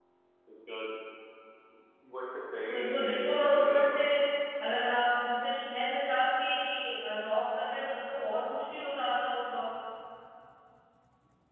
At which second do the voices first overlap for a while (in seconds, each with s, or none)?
2.7 s